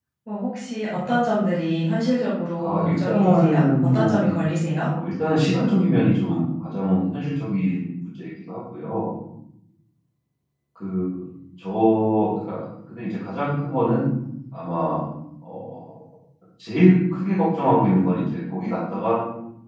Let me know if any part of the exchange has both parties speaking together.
Yes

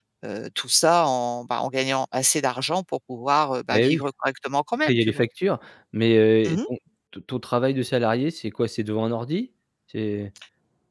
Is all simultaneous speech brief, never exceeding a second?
Yes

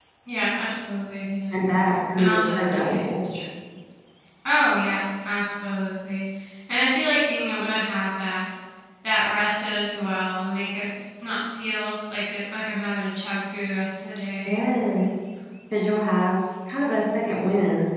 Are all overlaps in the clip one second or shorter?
No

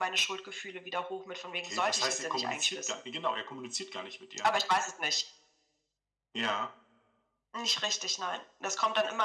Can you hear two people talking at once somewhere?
Yes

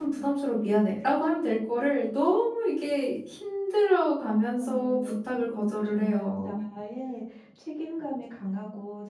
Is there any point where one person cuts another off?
Yes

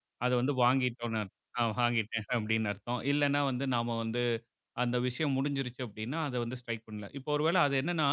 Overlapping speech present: No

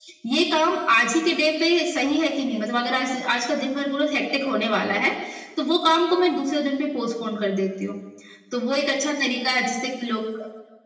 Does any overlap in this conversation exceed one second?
No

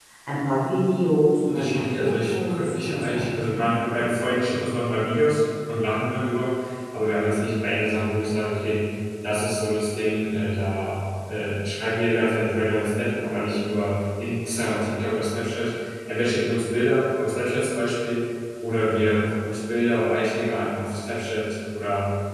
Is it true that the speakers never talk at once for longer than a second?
No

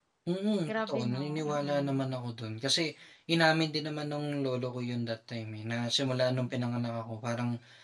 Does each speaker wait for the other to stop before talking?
No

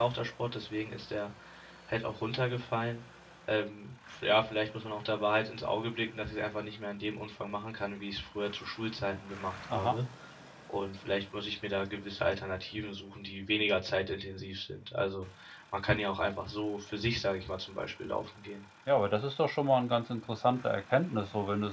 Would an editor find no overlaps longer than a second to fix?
Yes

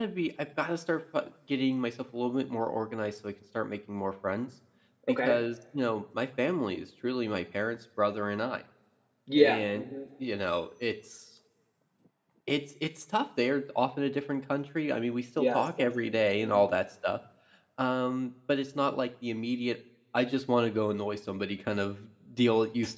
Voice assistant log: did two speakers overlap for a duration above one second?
Yes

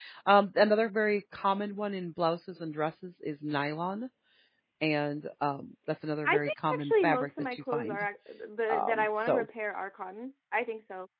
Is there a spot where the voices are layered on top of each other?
Yes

